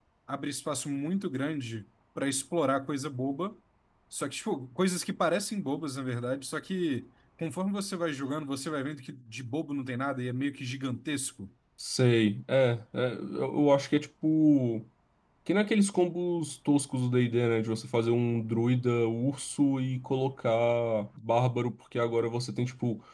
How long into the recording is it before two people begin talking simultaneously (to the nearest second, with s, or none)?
none